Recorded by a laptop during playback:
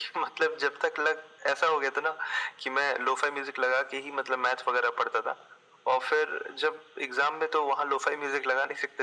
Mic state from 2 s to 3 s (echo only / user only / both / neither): echo only